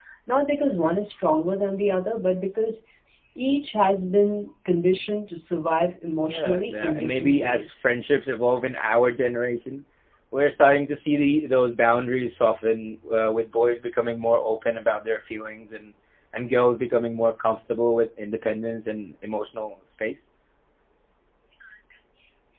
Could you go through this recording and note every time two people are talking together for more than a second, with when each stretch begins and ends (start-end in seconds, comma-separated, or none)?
6.3-7.7